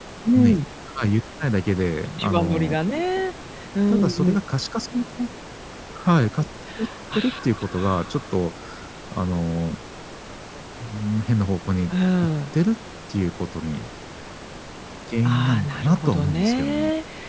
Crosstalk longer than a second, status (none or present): present